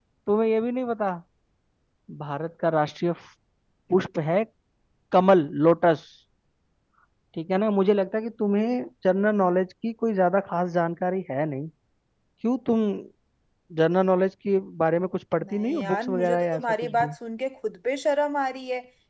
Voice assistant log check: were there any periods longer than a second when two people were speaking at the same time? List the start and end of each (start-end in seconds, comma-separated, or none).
15.5-17.1